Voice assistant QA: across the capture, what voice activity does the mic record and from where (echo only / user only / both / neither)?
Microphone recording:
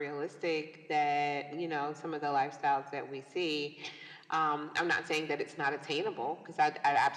echo only